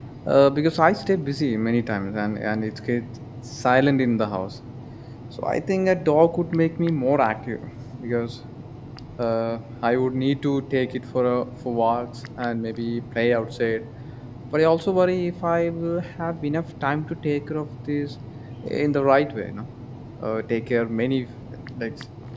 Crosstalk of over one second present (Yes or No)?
No